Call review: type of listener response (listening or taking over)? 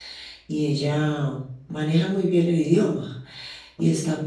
listening